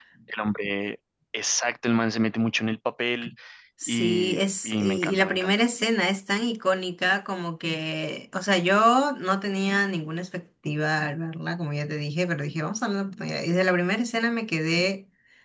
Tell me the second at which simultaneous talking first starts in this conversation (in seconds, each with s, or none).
3.9 s